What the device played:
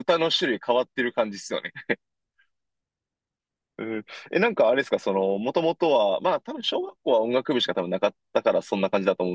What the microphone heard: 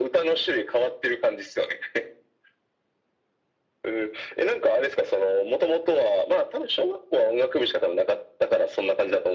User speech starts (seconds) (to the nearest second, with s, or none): none